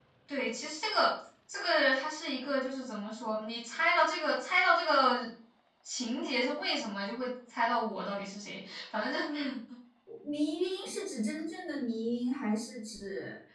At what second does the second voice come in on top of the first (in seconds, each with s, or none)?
none